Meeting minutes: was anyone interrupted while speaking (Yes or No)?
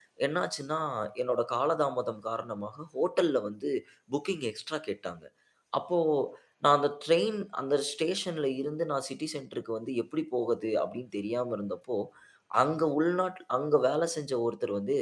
No